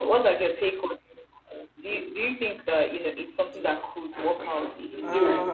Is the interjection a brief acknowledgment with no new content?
No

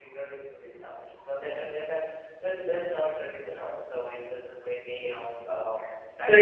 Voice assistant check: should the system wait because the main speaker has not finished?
No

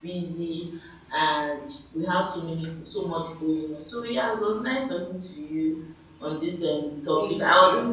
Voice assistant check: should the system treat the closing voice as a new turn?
No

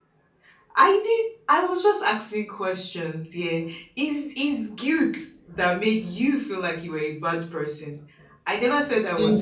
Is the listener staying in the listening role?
Yes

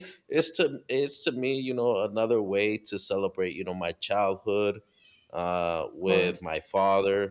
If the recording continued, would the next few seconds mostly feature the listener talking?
No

